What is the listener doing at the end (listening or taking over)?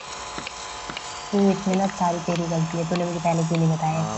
taking over